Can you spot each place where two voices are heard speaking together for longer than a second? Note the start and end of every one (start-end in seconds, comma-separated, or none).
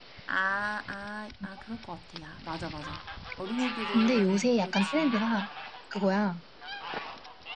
3.9-5.1